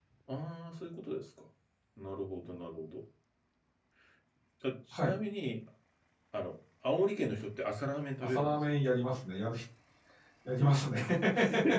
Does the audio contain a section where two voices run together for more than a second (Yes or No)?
No